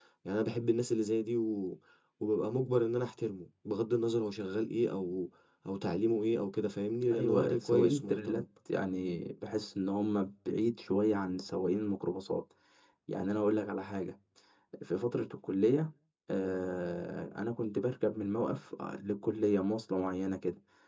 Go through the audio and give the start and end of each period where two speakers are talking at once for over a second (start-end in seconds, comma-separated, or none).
7.1-8.4